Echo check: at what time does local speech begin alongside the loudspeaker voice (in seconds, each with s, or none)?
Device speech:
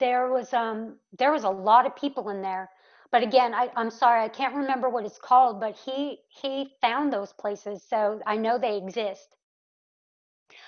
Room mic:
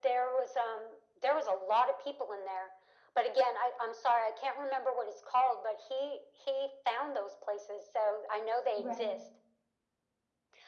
8.8 s